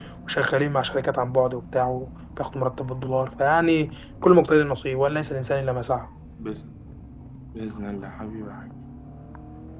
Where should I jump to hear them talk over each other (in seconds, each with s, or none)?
none